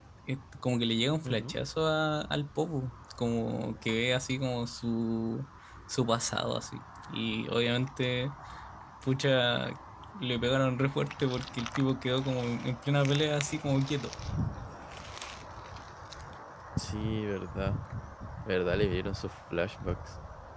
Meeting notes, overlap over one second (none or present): none